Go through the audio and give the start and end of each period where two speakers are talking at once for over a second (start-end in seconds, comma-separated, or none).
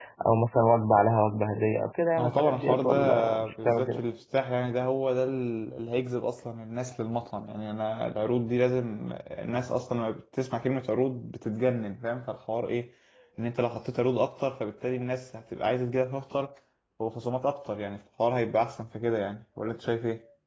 2.2-4.0